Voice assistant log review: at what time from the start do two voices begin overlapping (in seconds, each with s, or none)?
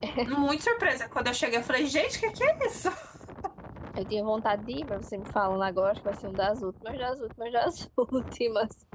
none